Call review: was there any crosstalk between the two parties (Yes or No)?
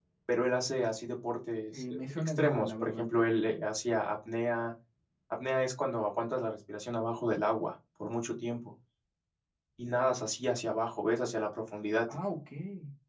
Yes